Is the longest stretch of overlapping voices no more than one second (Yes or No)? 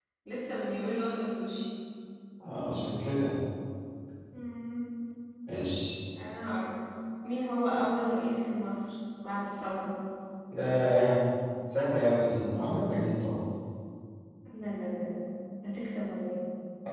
Yes